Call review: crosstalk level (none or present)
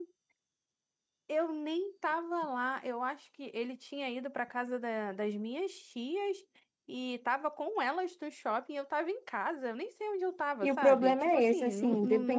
present